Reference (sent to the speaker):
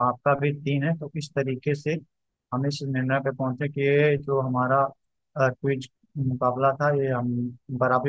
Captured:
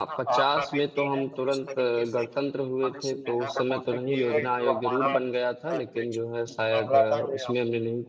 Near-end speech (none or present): present